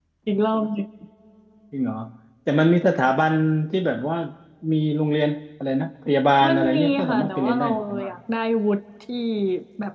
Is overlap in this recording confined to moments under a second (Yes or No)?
No